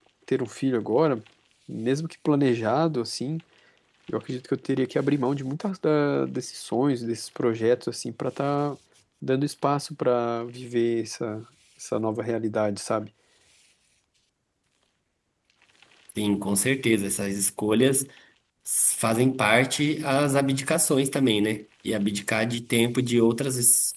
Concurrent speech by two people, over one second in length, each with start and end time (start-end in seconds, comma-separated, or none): none